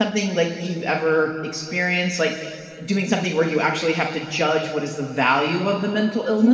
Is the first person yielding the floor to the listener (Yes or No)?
Yes